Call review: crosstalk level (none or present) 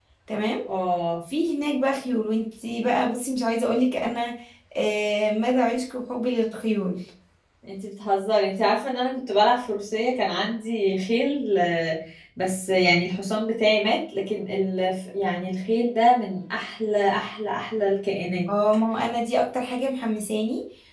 none